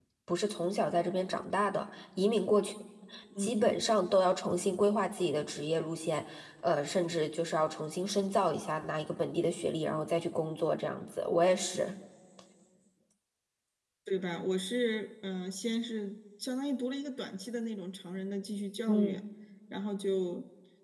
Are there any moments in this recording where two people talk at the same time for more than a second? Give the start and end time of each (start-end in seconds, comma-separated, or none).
none